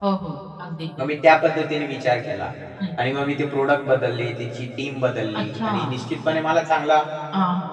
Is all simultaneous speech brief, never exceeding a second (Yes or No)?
Yes